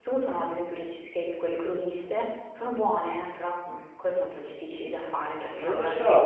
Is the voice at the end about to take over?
Yes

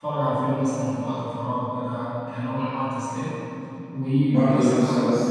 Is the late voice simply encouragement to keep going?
No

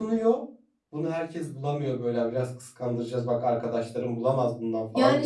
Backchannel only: No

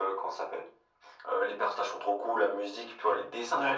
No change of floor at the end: Yes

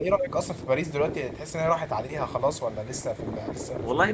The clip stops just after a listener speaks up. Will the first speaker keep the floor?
No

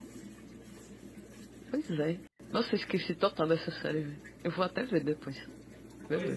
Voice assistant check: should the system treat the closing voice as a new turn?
Yes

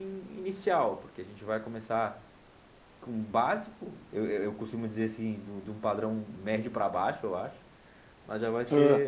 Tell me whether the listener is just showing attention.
Yes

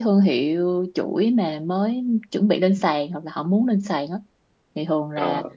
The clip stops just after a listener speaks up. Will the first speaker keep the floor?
Yes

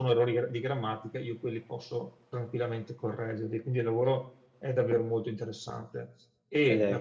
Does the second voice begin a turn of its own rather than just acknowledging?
No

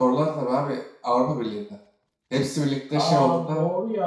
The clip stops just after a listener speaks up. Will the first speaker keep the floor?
No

